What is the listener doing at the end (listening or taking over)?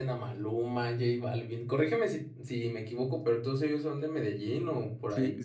taking over